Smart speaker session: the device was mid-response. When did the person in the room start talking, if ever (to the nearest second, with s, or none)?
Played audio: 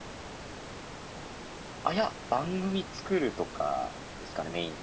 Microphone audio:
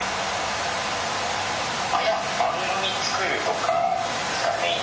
none